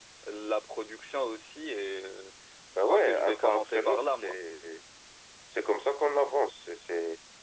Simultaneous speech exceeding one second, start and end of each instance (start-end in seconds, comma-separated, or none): 2.8-4.3